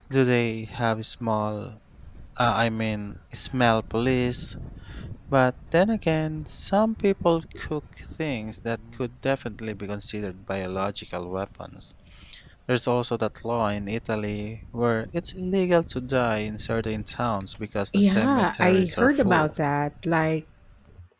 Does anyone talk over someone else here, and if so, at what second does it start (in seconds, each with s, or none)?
17.9 s